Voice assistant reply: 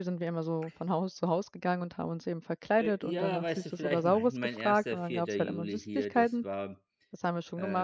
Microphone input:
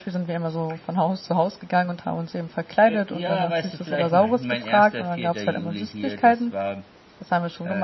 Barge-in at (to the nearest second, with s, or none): none